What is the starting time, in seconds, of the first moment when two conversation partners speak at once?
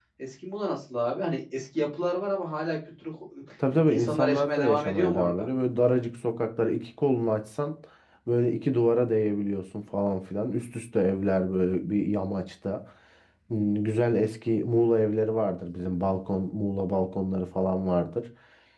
3.9 s

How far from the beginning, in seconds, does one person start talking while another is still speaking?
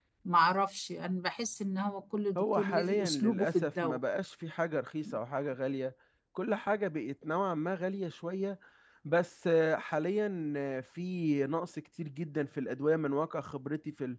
2.4 s

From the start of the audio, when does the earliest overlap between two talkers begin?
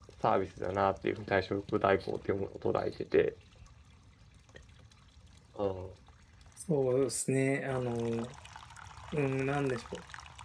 none

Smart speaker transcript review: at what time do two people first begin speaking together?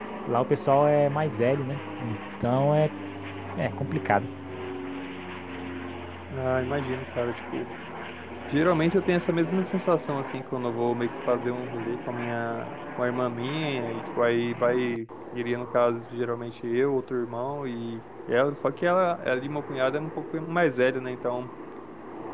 none

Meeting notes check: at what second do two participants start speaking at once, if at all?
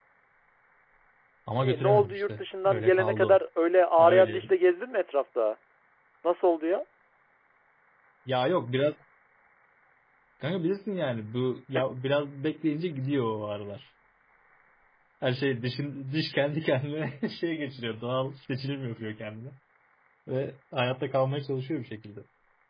1.6 s

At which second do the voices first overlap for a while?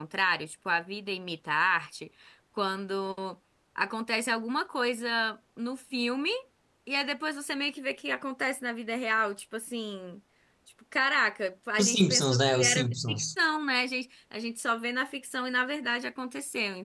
11.8 s

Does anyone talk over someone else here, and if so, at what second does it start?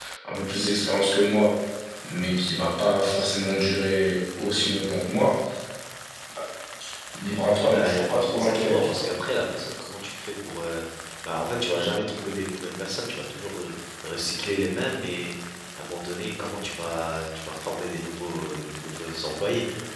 7.7 s

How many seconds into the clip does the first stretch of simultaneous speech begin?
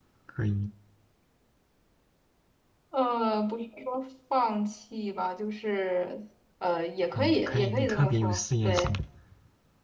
7.1 s

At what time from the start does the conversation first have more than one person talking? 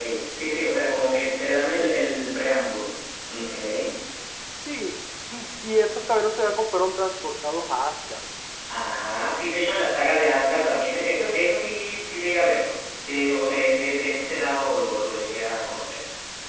none

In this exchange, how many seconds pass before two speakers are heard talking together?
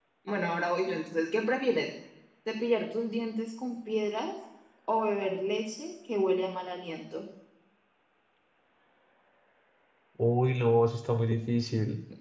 none

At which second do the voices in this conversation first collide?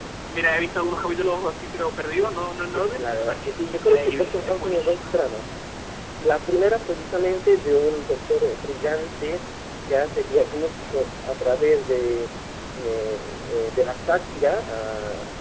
2.7 s

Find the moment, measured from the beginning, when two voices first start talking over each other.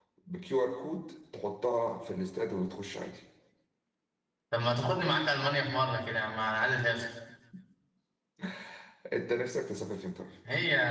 none

